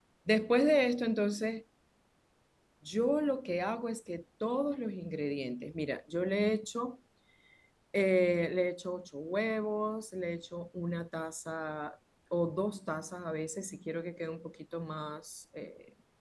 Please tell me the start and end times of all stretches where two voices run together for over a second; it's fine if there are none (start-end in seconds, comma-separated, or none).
none